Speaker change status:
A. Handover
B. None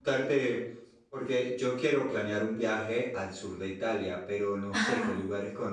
B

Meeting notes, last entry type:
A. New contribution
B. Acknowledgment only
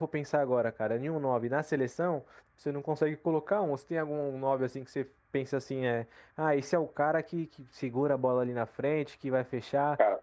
B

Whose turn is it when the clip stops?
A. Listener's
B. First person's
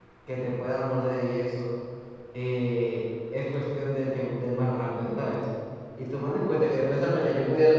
B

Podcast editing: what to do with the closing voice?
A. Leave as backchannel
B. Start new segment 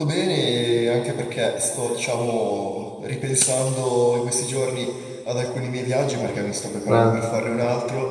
A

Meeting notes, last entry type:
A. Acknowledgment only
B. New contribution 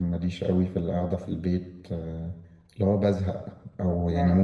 A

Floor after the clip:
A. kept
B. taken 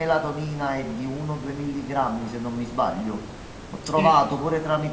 A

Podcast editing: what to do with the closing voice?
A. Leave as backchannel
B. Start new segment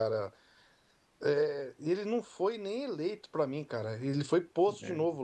A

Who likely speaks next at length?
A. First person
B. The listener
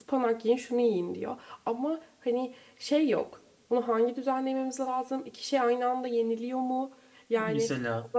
A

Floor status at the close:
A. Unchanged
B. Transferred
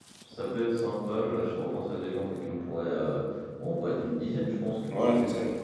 B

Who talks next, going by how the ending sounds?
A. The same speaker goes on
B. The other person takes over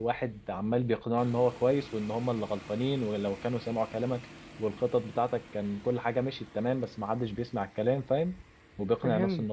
B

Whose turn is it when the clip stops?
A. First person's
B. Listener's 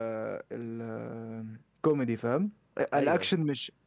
A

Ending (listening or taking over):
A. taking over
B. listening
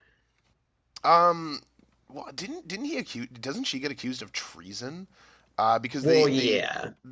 B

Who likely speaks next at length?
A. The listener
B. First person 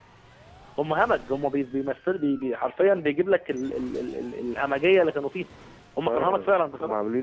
A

